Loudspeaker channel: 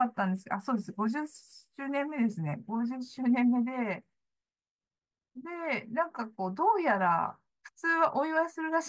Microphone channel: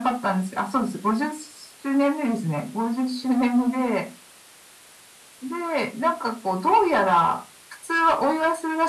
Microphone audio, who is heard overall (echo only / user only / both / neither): echo only